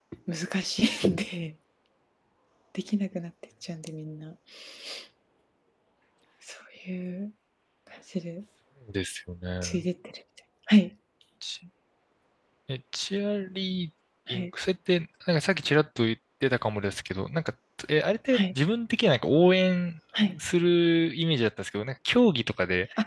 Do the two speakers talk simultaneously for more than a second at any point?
No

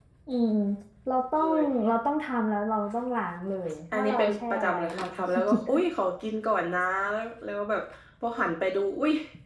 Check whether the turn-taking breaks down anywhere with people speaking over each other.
Yes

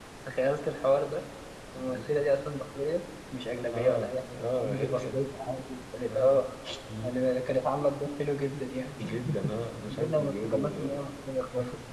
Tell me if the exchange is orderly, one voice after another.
No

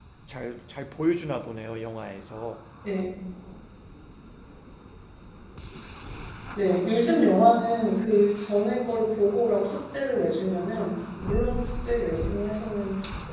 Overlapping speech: No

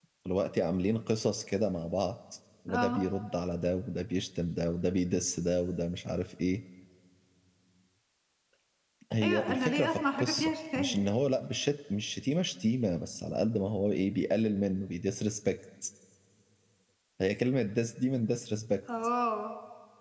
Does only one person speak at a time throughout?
No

